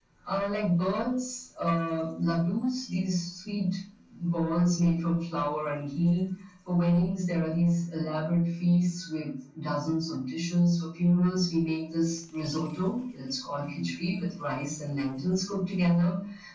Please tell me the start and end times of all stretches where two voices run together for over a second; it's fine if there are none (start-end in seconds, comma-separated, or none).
none